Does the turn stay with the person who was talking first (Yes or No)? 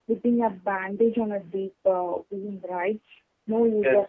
No